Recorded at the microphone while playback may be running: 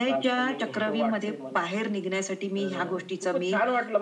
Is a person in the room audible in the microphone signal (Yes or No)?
No